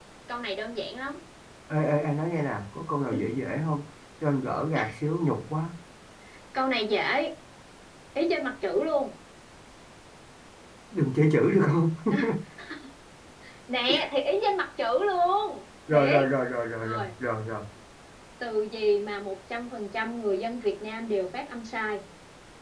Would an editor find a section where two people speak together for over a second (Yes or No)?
No